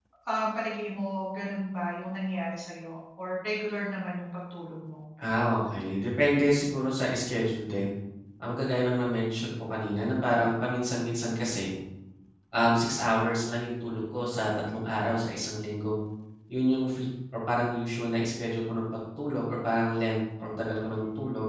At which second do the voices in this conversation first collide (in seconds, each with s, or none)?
none